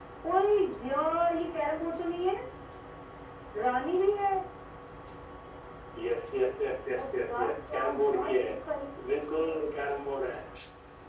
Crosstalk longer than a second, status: present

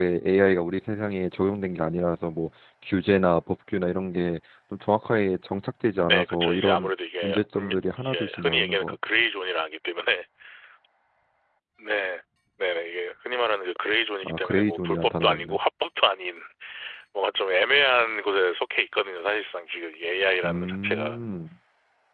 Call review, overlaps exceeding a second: present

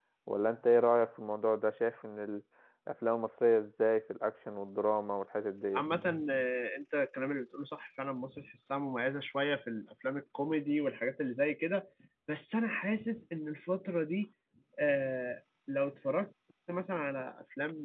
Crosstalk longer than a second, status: none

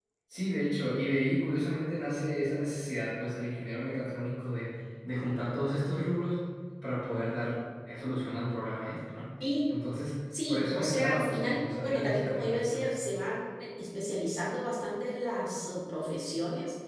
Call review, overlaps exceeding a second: present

